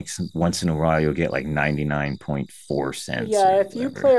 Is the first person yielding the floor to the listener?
Yes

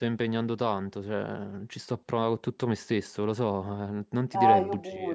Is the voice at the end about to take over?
Yes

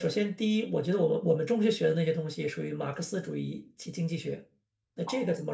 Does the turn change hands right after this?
No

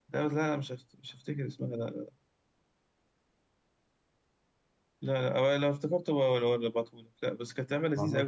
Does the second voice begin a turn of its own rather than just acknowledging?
No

